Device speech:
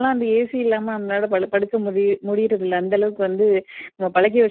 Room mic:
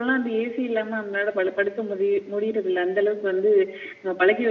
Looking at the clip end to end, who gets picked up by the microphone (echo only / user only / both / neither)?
echo only